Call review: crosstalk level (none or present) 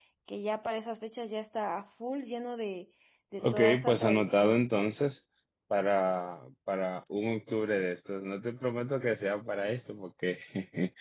present